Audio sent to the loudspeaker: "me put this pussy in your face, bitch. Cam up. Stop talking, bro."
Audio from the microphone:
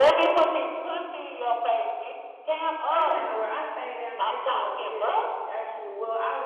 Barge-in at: 3 s

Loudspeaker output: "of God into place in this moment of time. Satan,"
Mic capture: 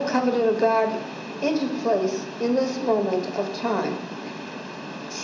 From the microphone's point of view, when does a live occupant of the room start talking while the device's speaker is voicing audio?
none

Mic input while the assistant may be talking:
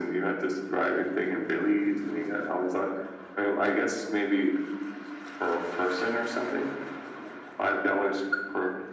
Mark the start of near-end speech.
none

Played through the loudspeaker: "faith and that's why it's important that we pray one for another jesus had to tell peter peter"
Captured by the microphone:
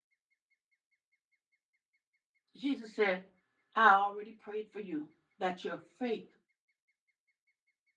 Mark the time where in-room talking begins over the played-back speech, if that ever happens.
3 s

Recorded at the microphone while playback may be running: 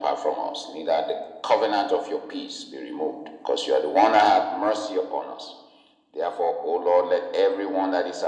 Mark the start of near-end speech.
none

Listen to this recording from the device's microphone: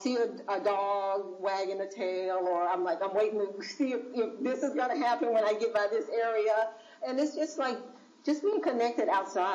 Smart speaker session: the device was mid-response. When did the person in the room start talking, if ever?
none

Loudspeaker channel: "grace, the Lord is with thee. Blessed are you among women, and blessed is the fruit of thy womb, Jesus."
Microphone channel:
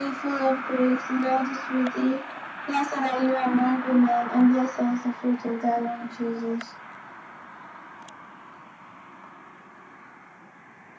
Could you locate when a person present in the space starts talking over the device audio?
none

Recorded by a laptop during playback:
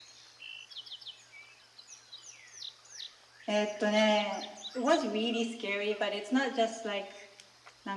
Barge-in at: none

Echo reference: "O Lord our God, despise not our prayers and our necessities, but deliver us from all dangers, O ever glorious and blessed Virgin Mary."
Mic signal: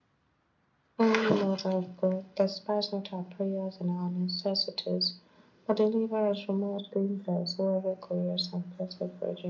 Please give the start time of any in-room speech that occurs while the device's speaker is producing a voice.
none

